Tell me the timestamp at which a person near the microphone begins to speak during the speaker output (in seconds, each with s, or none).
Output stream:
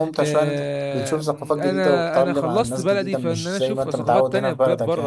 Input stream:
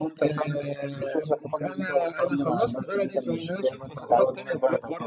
none